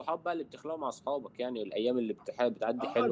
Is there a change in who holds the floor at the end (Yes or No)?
Yes